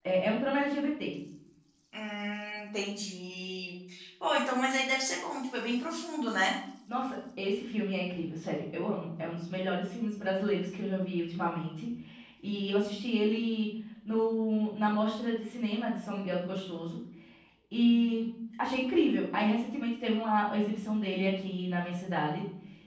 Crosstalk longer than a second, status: none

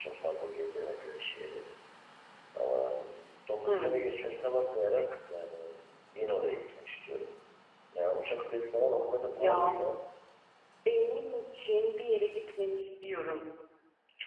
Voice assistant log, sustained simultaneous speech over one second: none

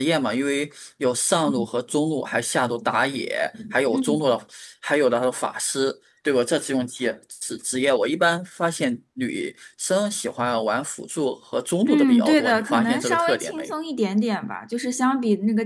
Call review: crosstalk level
present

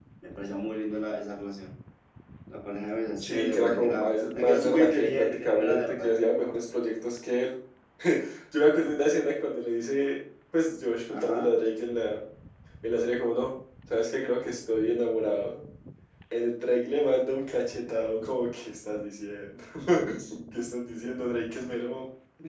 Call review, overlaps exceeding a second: present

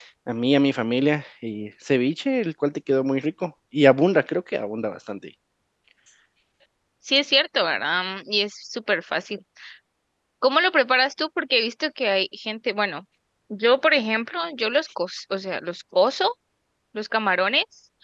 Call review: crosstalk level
none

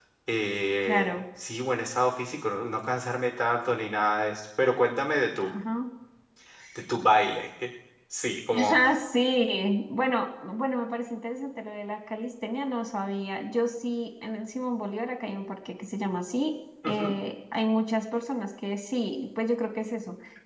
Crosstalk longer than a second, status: none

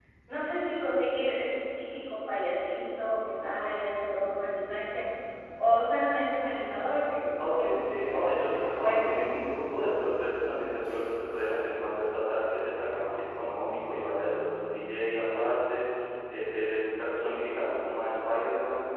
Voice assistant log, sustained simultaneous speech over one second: present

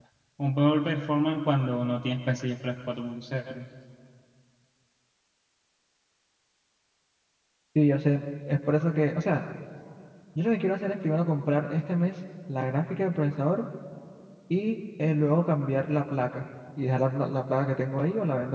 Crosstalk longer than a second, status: none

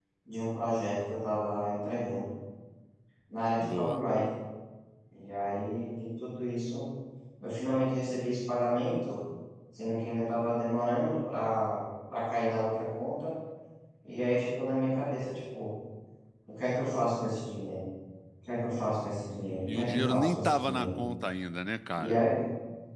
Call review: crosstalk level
present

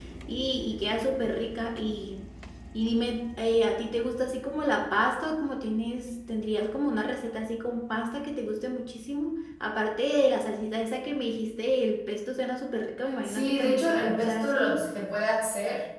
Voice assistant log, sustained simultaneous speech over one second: present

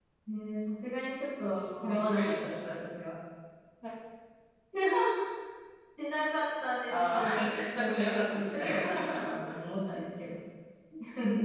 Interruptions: present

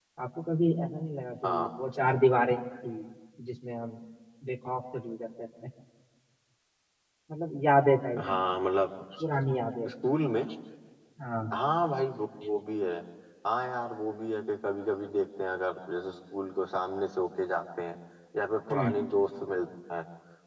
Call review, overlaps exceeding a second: none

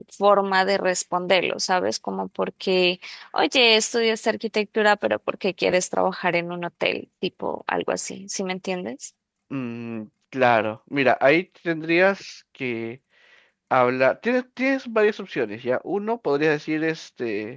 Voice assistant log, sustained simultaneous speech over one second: none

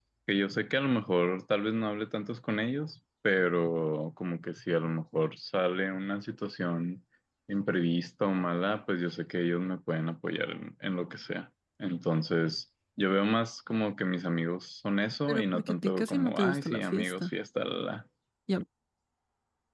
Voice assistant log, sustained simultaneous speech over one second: present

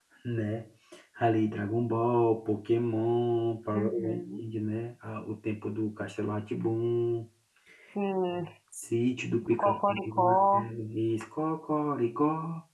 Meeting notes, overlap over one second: present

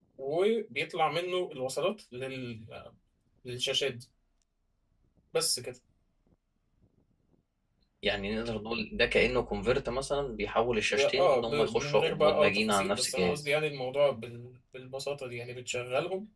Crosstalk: present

